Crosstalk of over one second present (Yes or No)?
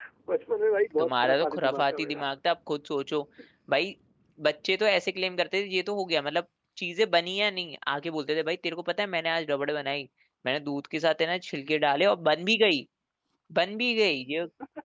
Yes